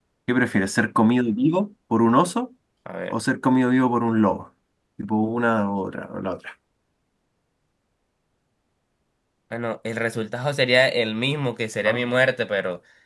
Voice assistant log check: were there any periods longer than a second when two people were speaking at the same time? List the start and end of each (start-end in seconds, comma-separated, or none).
none